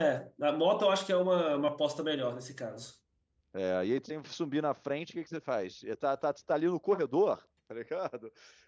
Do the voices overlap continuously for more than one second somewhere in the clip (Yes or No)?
No